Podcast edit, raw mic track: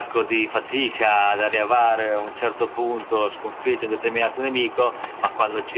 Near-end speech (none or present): none